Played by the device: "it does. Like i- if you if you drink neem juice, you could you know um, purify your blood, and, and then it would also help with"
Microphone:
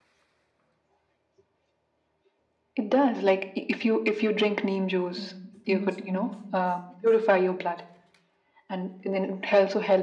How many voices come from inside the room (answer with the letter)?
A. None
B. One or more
B